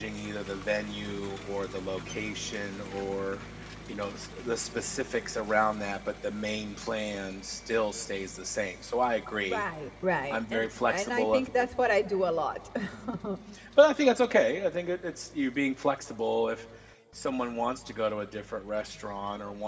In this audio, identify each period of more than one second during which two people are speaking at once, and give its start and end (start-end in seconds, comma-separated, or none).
10.3-11.7